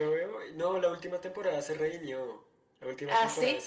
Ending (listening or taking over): listening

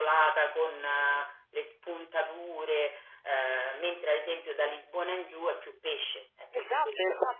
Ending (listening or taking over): taking over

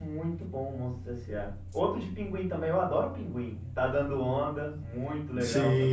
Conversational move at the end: taking over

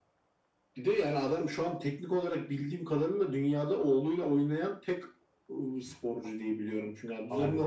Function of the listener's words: listening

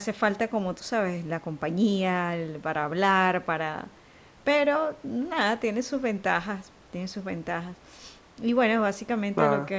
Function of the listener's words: listening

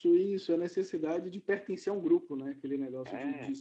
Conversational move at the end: listening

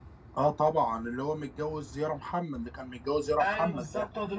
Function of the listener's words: taking over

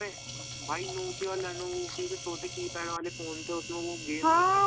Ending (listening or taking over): taking over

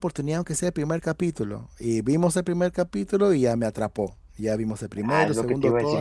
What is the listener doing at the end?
taking over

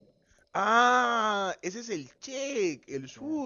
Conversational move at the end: listening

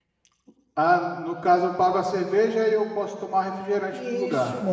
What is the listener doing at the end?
taking over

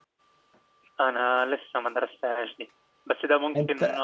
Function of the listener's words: listening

